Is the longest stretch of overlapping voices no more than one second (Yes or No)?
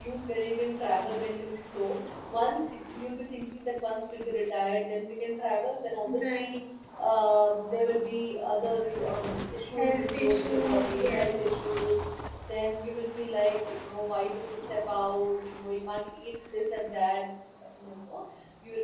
No